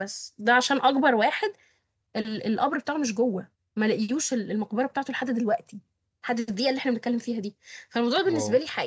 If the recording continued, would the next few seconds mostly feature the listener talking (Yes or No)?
No